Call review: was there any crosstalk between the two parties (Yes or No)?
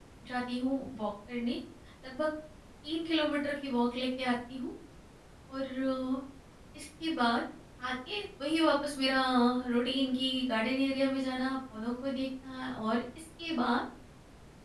No